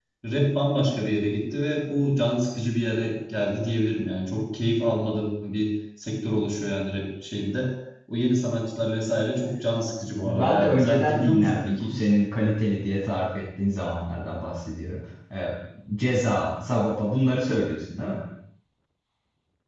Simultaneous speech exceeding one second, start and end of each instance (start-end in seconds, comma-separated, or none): 10.2-11.9